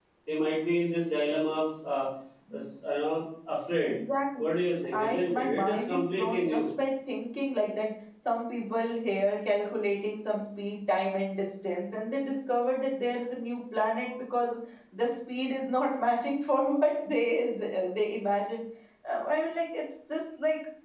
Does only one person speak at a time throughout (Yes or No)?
No